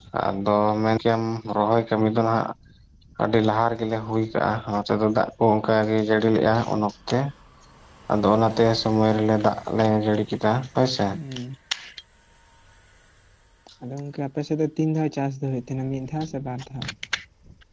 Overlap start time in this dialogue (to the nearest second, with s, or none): none